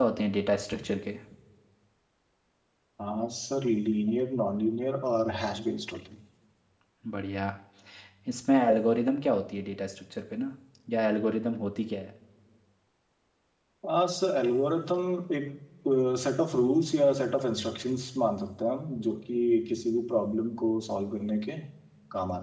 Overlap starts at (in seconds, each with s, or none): none